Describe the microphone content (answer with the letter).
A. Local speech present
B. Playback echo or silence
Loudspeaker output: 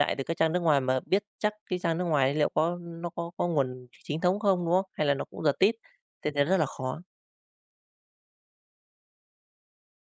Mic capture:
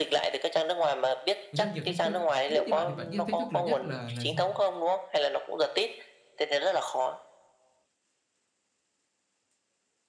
A